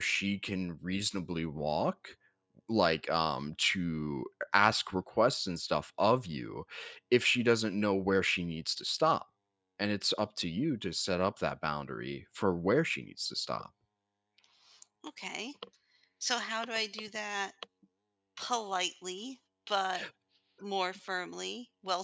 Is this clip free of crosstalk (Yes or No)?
Yes